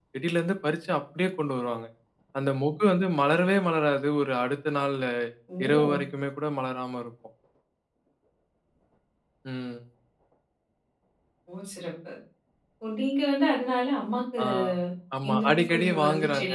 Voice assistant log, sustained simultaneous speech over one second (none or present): present